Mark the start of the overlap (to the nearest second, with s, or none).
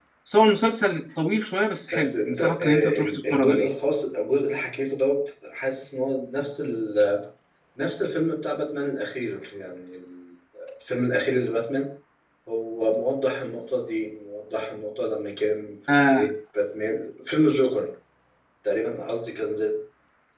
2 s